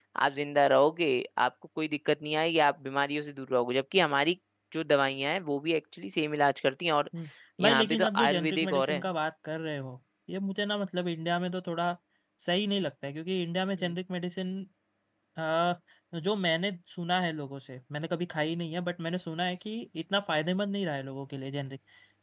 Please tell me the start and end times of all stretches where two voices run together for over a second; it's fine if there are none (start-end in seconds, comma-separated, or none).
7.6-9.0